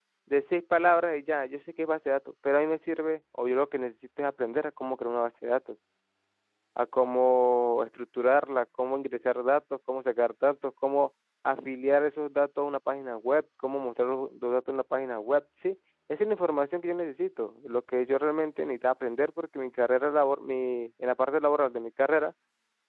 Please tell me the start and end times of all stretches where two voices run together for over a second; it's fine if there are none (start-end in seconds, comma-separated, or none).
none